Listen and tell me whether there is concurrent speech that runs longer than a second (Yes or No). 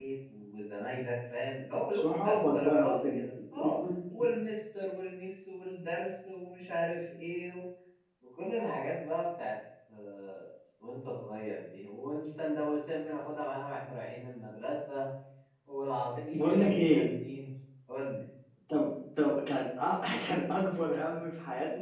Yes